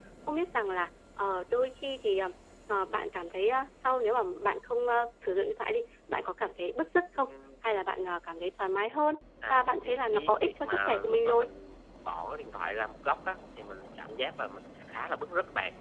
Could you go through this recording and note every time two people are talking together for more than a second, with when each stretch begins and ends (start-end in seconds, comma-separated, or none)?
9.5-11.5